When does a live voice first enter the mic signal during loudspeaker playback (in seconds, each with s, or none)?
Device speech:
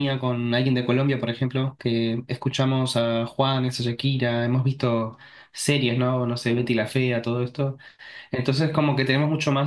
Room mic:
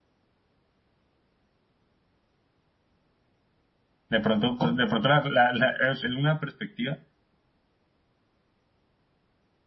4.1 s